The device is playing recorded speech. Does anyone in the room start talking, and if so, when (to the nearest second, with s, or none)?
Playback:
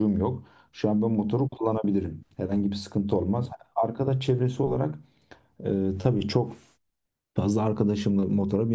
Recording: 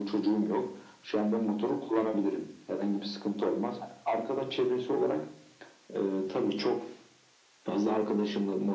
none